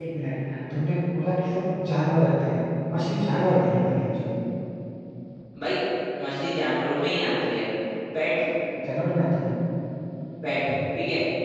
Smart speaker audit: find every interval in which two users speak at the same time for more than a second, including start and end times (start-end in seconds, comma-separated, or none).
none